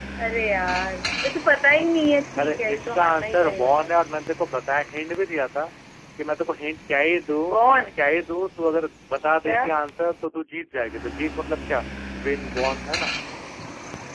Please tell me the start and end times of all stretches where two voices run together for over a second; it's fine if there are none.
2.4-3.9

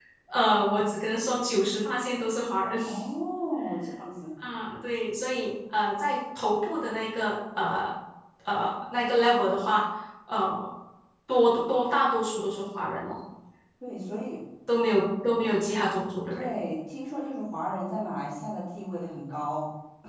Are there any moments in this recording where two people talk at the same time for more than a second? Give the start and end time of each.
none

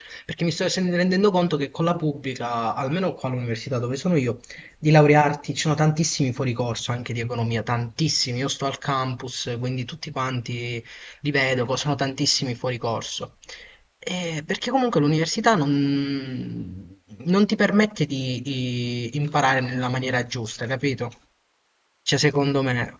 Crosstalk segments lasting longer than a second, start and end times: none

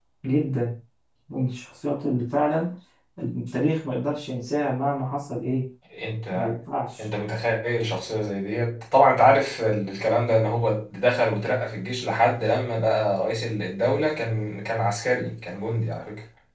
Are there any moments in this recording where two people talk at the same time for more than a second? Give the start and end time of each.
none

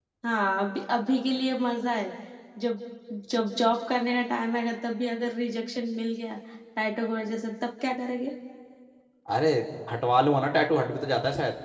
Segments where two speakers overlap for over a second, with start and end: none

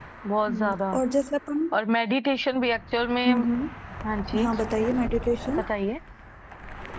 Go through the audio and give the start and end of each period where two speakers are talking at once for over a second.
none

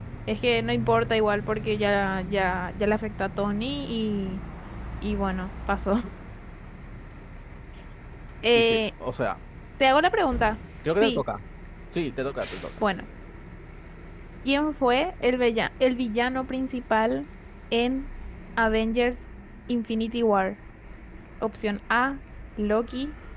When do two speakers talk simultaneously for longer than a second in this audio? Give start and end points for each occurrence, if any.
none

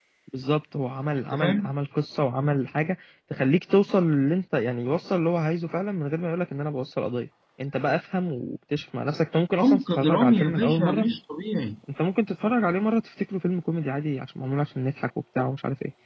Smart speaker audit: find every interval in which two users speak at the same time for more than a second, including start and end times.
9.6-11.0

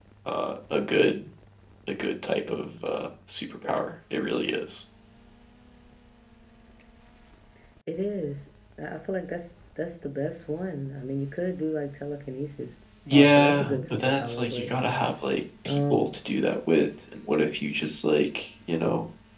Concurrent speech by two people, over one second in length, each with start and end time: 13.1-14.7

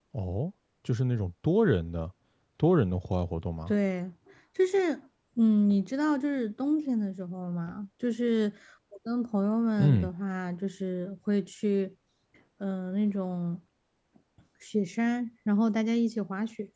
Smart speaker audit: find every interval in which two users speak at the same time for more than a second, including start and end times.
none

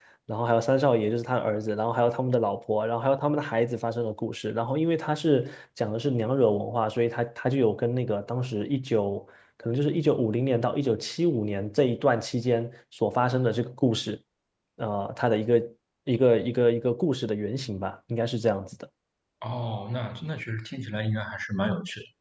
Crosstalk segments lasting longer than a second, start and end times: none

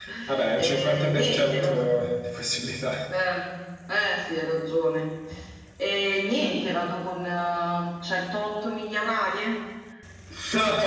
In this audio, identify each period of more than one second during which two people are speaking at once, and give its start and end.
0.5-1.9

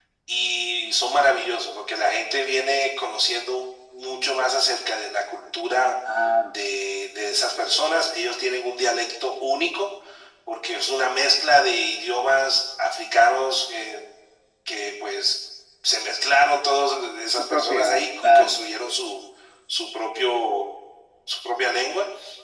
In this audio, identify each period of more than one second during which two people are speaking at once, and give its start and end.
17.3-18.6

